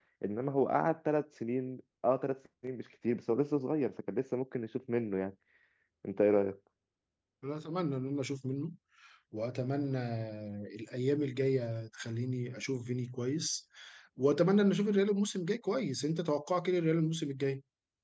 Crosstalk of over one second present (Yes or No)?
No